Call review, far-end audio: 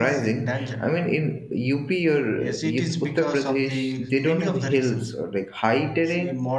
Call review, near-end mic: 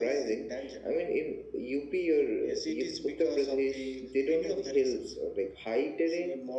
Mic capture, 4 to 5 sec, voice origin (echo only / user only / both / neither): echo only